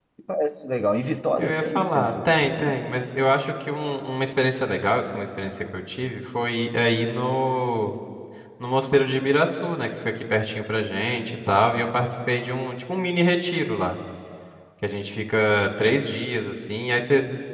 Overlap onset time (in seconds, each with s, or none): 1.4 s